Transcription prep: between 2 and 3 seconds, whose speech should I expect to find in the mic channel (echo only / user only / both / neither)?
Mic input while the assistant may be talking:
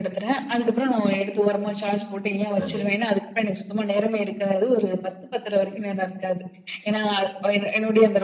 both